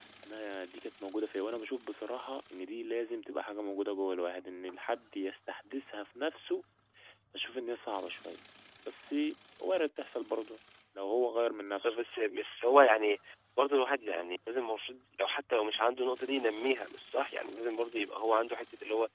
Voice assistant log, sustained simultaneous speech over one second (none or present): none